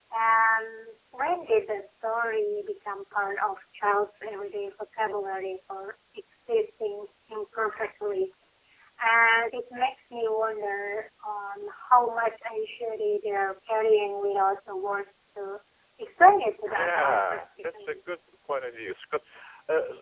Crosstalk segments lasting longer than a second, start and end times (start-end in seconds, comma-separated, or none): 16.7-18.0